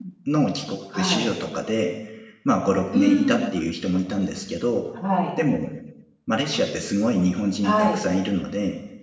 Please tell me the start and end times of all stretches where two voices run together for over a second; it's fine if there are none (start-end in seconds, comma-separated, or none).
none